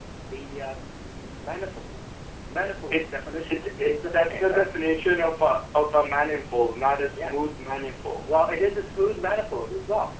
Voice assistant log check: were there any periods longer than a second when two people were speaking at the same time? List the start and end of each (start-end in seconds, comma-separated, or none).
2.9-4.7